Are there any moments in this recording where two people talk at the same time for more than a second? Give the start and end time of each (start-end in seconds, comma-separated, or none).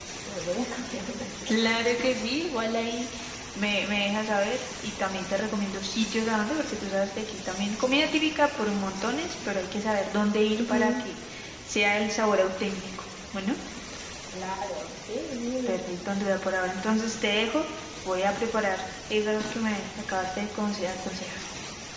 none